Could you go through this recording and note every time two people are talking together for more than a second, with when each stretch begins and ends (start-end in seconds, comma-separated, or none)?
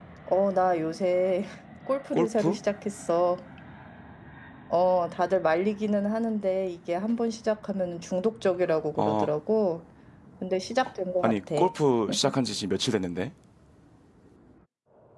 none